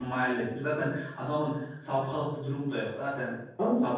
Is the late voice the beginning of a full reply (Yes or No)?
Yes